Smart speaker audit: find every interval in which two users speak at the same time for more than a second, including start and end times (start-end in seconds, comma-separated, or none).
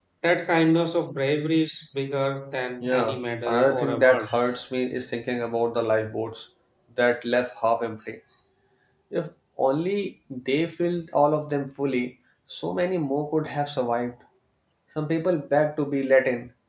2.8-4.2